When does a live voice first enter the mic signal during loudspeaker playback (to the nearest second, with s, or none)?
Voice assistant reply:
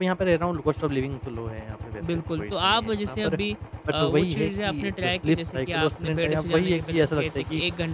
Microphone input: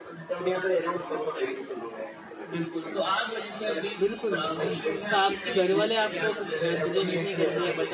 4 s